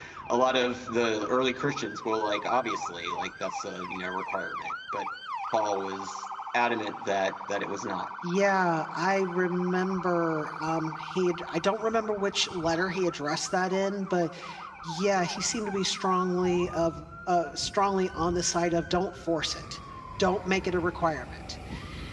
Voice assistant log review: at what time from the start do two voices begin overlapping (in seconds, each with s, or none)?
none